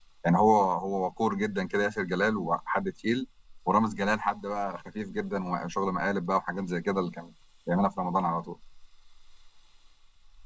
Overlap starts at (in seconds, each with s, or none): none